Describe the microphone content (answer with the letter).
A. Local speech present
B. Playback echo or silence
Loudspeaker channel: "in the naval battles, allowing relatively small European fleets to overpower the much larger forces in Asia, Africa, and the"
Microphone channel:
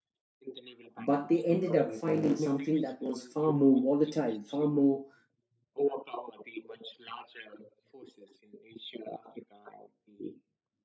A